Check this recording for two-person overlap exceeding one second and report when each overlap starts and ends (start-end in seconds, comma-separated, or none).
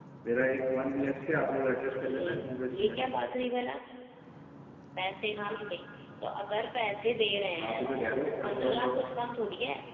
2.1-3.4